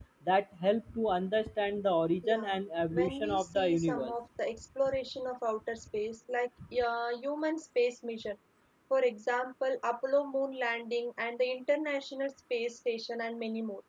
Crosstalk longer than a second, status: present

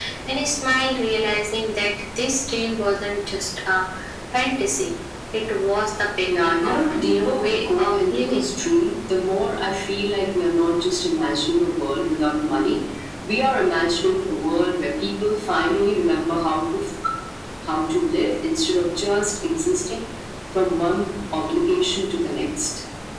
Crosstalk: present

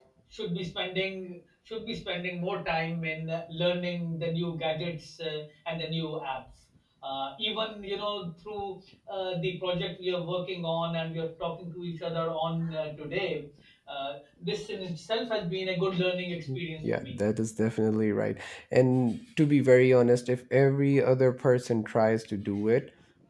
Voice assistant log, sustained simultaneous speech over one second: none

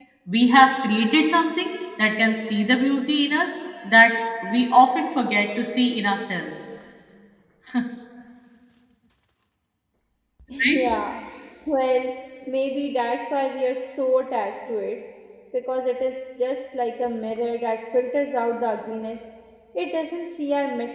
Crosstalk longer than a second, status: none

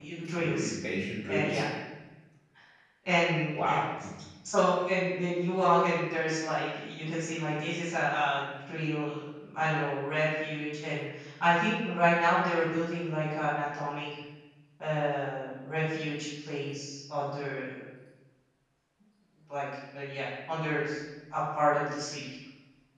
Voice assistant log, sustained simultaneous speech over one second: none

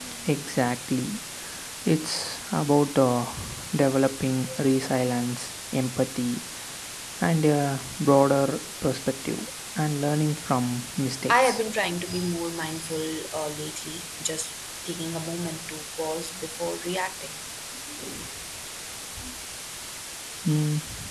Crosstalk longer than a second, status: none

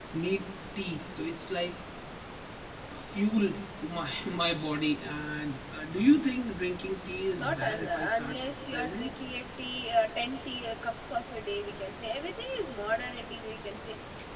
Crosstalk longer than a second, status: present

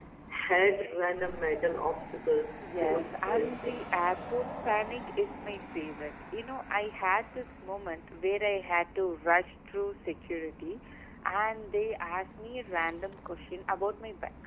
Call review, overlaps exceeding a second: present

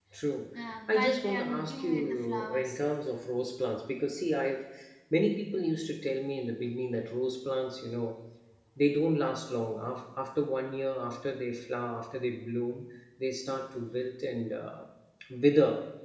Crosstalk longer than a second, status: present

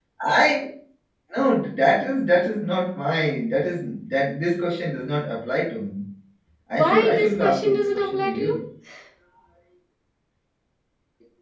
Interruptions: present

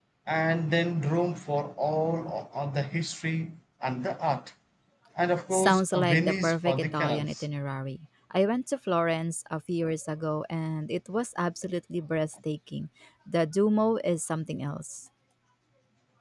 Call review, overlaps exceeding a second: present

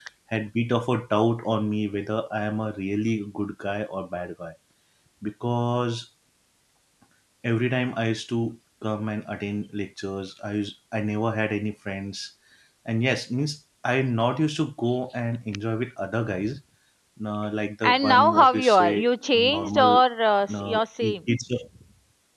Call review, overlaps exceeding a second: present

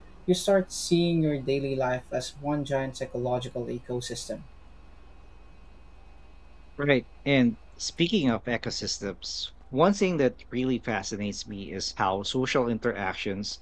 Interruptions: none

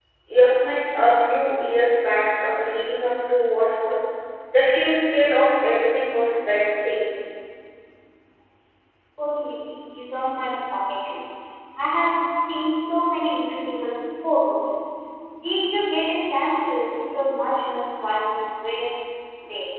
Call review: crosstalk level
none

